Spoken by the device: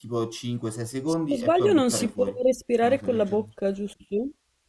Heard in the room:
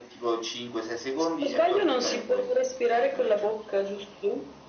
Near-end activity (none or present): none